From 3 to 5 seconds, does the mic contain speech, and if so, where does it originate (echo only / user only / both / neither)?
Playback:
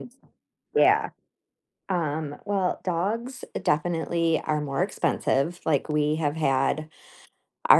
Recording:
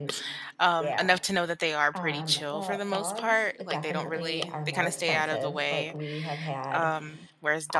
both